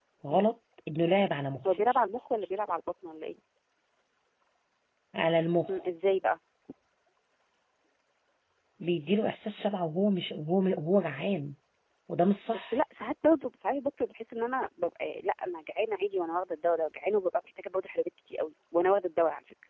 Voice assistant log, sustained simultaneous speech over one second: none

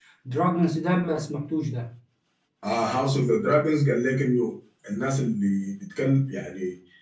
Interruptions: none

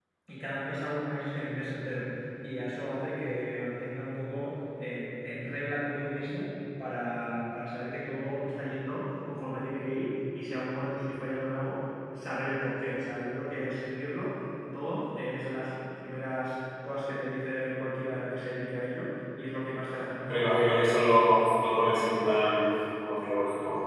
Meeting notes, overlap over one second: none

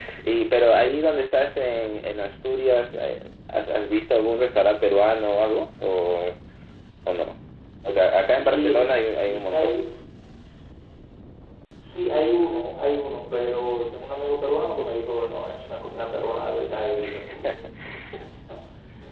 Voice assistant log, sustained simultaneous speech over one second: present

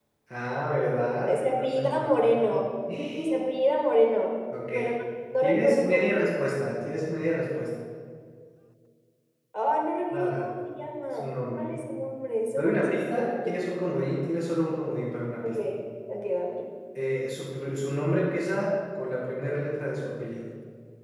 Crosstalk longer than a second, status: present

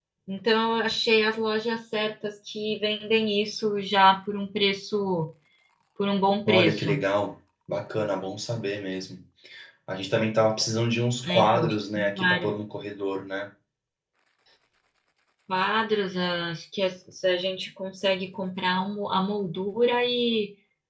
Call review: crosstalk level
present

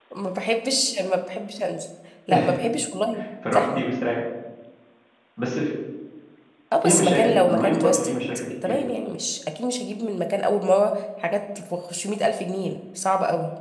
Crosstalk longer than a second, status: present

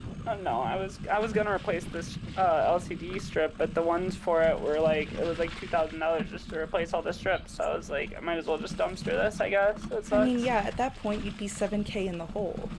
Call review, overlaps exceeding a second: none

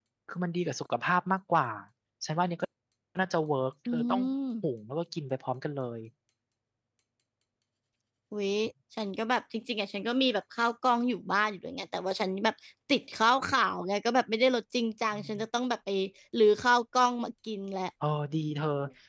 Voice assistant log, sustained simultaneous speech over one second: none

